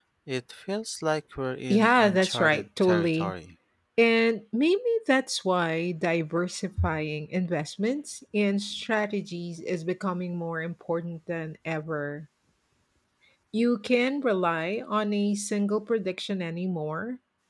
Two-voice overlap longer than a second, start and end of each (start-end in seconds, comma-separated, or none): 1.7-3.3